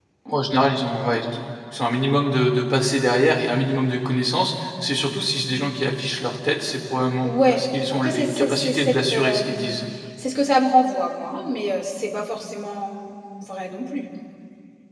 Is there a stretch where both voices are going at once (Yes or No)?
Yes